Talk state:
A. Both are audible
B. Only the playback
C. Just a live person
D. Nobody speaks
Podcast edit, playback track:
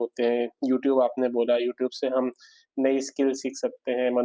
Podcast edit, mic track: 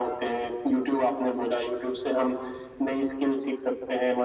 B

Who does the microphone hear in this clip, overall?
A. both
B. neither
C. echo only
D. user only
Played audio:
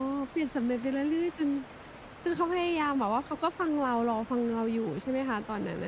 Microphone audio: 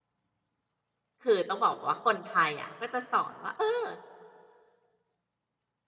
D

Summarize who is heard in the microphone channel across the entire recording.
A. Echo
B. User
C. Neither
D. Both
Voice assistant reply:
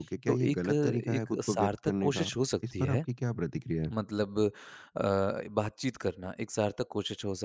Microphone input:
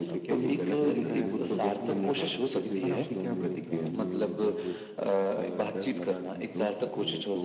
D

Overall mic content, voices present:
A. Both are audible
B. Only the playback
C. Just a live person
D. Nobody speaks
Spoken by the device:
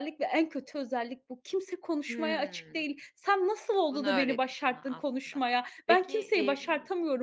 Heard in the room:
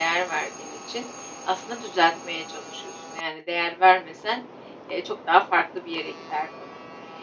C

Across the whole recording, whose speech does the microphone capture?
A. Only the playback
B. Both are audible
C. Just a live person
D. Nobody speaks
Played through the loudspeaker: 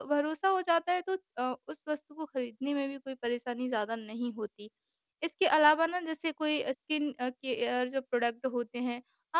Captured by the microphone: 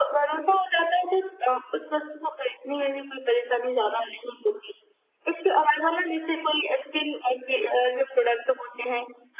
A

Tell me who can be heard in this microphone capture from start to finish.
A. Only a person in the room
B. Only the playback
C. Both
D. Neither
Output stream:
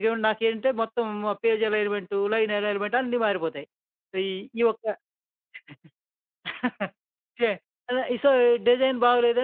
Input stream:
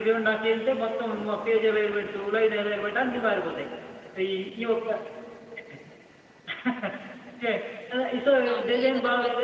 C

